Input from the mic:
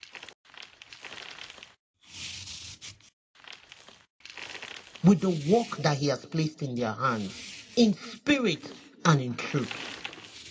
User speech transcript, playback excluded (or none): with the work that he has placed in their hands, in spirit and in truth,